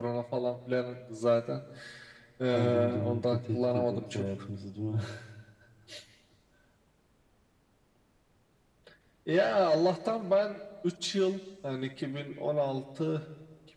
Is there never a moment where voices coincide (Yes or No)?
No